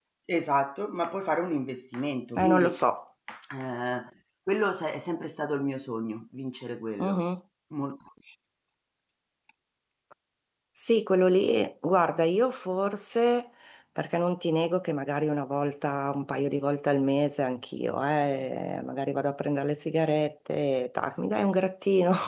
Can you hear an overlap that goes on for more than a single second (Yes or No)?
No